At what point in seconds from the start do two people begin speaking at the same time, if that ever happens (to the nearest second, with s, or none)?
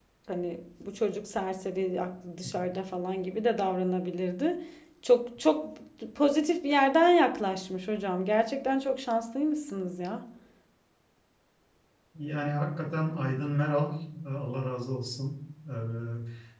none